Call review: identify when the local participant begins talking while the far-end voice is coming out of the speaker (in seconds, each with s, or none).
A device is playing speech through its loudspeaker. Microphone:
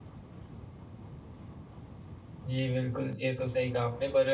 2.4 s